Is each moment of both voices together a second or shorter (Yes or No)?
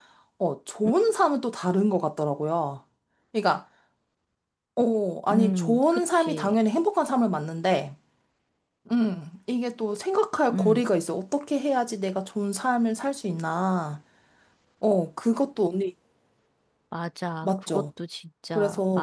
No